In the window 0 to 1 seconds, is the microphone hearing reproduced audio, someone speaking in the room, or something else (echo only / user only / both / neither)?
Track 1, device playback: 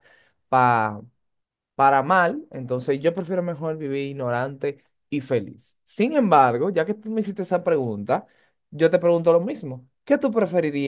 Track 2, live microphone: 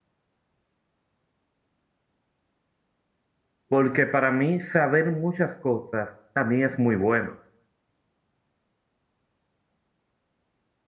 neither